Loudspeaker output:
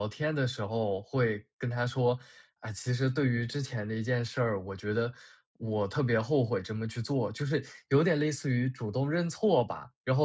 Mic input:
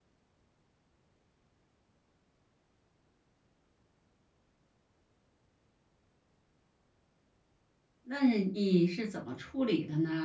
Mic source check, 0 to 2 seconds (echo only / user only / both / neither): neither